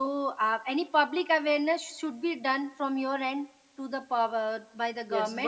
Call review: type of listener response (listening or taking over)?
taking over